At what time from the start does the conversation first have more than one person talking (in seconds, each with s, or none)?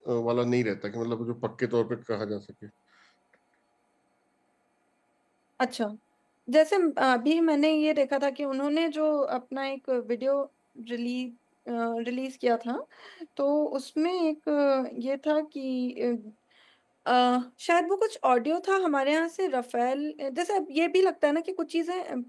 none